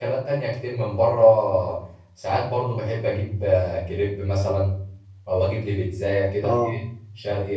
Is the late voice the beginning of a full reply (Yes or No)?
No